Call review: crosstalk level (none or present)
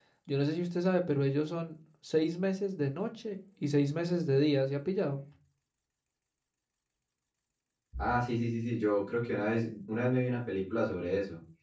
none